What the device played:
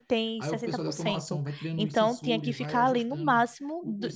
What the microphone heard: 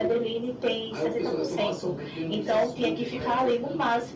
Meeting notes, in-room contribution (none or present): none